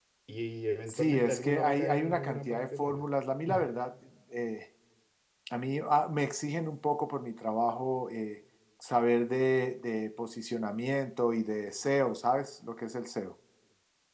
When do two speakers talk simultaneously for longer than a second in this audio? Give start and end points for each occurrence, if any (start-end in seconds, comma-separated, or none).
0.9-3.0